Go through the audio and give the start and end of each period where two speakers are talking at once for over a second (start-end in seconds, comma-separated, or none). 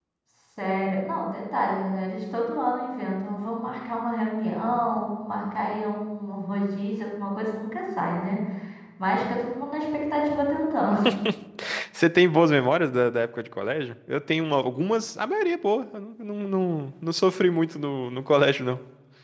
none